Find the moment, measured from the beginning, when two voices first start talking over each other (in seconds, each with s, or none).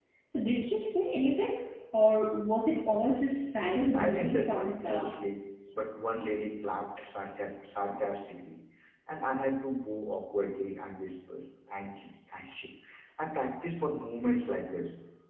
3.8 s